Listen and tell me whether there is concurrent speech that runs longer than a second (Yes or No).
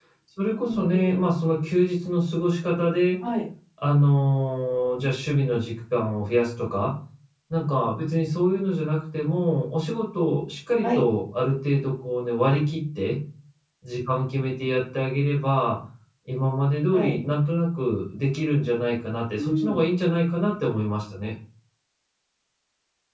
No